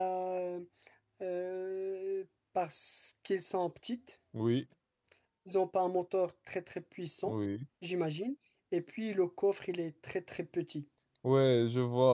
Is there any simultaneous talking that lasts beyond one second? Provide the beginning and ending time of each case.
none

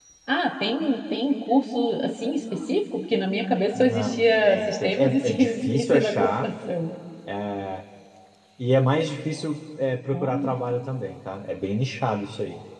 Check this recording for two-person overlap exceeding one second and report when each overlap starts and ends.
3.7-6.5

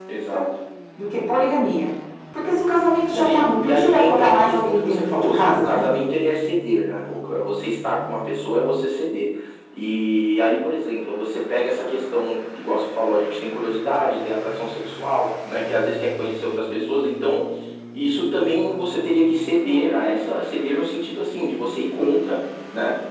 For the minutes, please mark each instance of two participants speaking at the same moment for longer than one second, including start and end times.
3.1-5.8

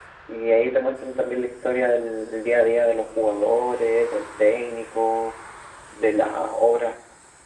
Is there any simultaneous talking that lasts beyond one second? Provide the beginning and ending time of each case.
none

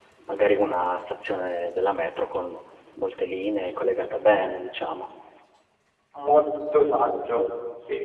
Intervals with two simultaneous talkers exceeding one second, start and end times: none

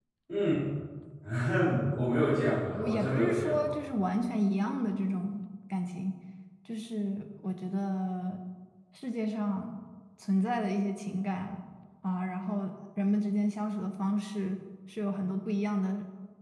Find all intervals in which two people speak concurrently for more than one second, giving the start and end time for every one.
2.4-3.8

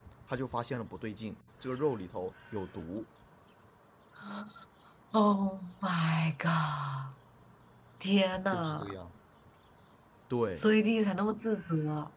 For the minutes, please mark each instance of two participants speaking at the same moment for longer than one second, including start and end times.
none

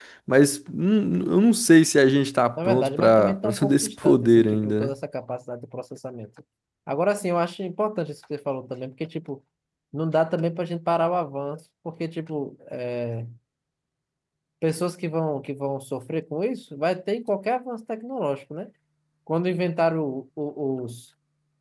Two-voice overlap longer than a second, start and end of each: 2.6-4.9

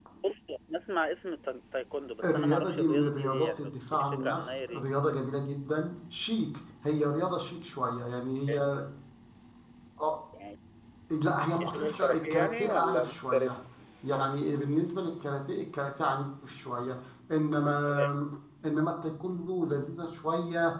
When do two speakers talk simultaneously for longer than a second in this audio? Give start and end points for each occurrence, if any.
2.2-4.9, 11.7-13.6

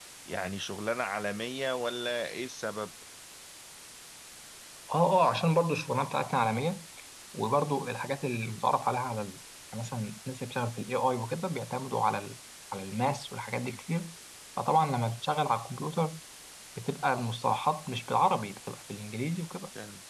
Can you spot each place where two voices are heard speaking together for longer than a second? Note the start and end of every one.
none

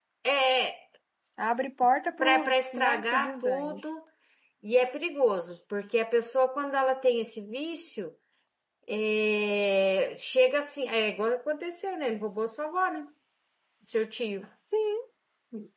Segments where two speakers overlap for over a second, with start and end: 2.2-3.8

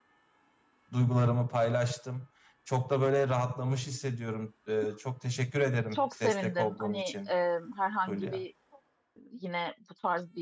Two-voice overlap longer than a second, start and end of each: 5.9-7.3

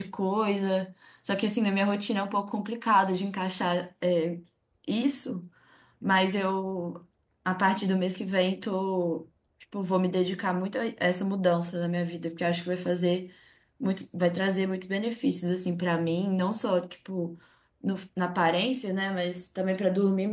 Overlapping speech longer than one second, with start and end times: none

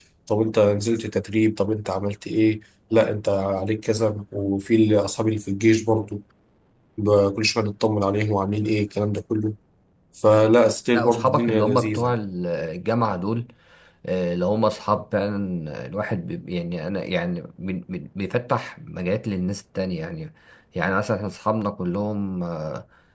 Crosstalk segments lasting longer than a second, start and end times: 10.9-12.1

